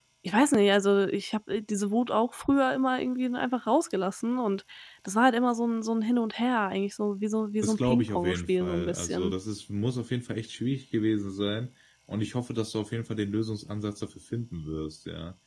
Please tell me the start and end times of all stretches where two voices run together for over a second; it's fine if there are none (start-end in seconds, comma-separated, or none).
7.6-9.3